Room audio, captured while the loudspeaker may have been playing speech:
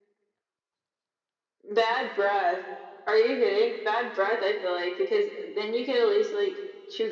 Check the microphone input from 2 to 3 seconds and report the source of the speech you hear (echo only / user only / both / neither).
echo only